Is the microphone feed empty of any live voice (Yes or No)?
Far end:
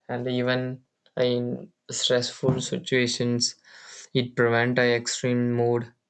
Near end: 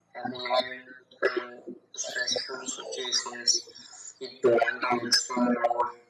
Yes